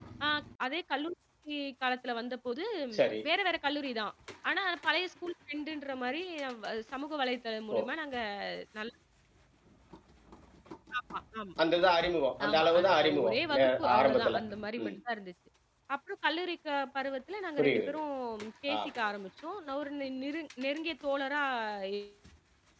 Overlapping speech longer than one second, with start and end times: 12.5-14.4

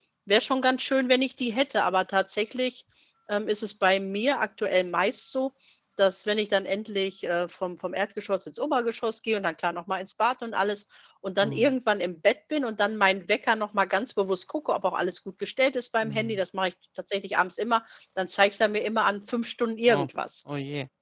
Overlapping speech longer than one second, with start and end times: none

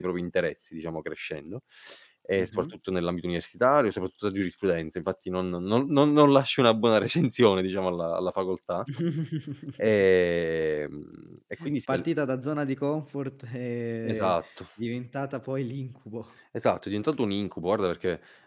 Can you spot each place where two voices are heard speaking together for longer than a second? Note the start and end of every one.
none

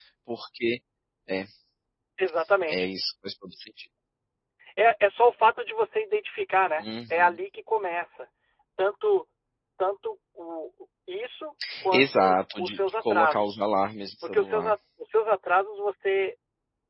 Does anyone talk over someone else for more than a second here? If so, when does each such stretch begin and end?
11.9-13.6

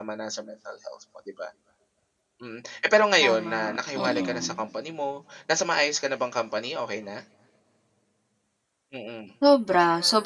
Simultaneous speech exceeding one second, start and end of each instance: 3.2-4.6

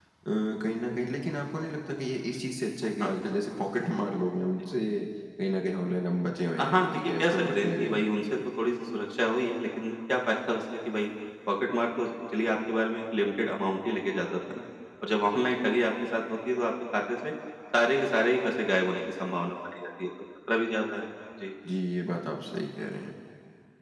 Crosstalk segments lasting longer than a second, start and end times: 6.6-8.0

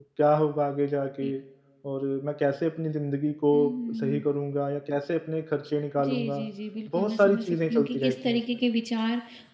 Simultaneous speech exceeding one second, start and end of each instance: 6.9-8.4

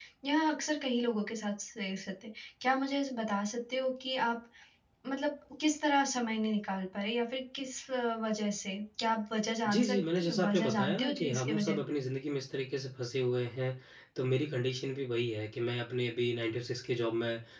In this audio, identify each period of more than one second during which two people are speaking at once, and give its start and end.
9.7-11.8

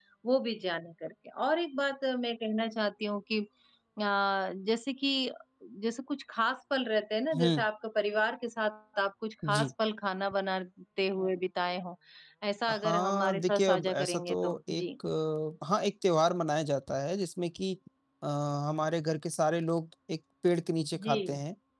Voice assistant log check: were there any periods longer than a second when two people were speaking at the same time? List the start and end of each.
12.7-14.8

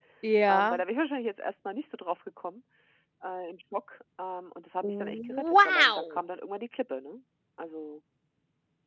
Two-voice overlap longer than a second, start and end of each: 4.8-6.2

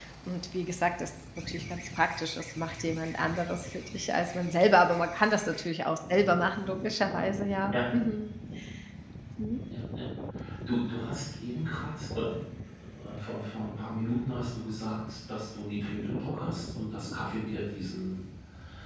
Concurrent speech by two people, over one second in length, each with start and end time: none

